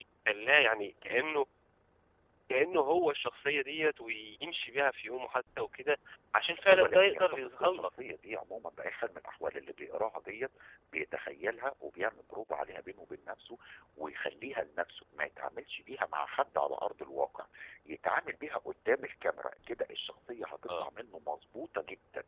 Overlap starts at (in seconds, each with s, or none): 6.7 s